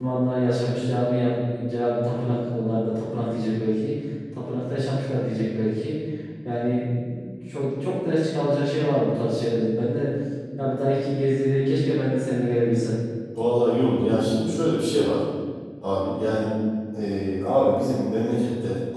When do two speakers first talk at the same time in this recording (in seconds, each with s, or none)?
none